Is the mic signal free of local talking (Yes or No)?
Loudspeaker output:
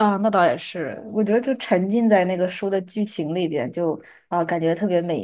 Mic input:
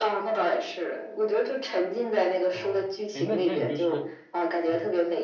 No